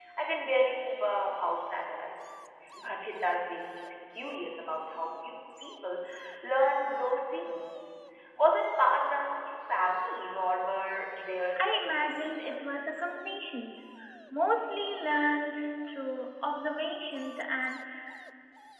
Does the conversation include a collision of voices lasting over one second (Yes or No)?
Yes